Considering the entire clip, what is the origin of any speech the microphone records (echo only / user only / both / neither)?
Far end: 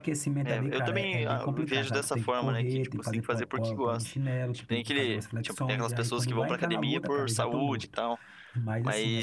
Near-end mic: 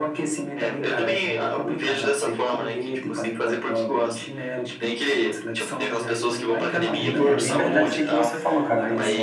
both